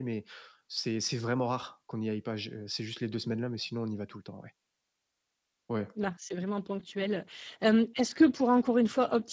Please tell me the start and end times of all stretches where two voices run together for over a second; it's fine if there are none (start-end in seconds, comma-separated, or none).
none